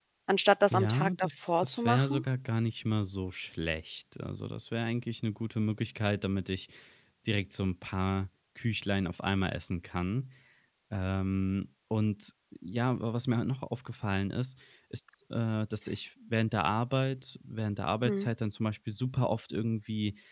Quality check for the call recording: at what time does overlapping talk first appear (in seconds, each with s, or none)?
0.7 s